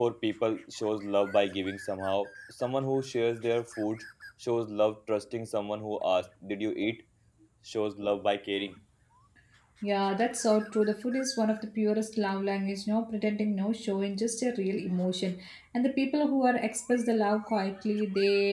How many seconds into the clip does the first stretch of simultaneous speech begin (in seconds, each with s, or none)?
none